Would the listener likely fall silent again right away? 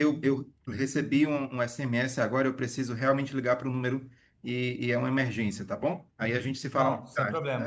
No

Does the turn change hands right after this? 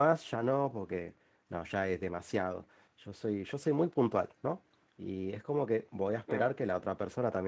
No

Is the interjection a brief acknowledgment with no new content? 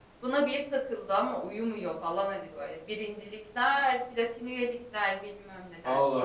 Yes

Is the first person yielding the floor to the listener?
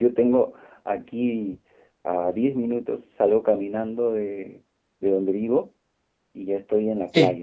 No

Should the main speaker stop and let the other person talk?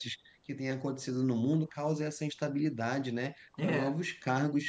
No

